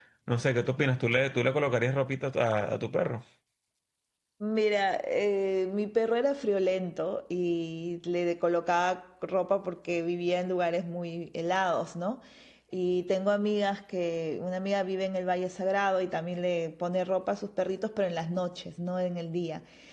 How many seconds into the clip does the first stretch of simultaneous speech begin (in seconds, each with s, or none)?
none